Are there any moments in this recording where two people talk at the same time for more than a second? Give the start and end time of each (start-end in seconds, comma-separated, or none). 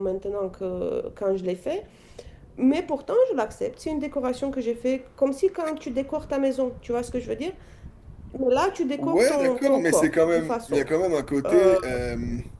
9.0-10.9